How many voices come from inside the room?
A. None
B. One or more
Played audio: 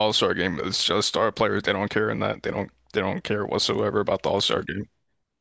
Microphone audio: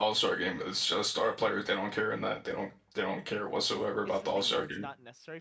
B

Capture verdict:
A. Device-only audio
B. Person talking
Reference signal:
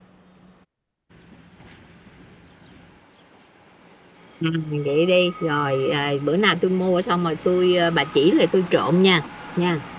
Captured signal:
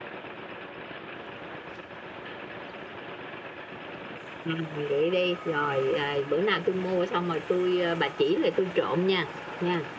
A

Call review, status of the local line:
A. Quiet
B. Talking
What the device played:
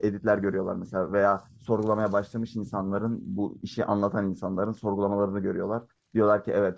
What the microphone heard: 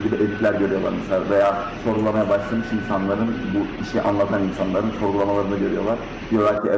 A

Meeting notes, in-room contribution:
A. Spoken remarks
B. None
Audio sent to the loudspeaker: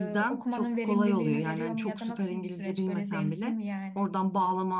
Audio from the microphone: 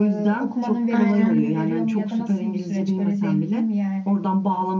A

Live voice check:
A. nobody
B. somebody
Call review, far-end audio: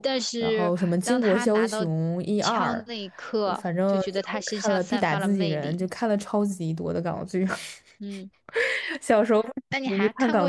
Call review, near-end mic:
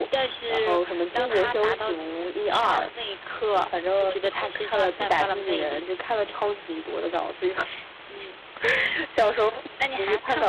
A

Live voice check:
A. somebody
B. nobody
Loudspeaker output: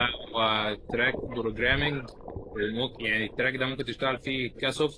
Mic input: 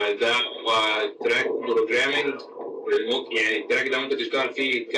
B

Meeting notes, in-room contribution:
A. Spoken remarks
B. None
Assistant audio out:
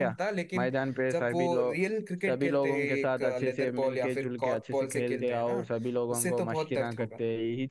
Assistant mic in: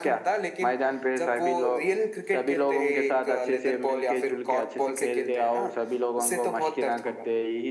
B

